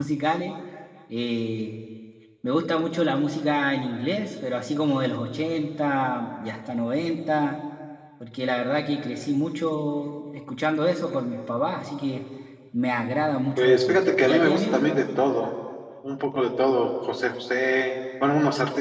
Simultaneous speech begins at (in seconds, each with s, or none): 13.6 s